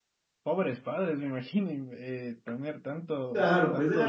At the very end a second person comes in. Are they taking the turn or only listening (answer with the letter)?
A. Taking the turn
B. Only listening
A